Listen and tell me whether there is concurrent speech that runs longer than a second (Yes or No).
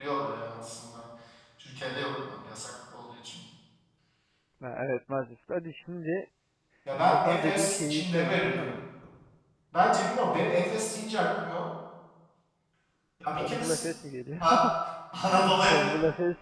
Yes